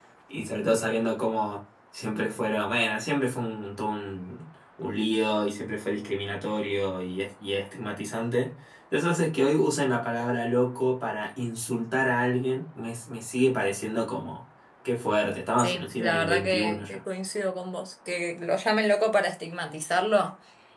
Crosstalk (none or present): present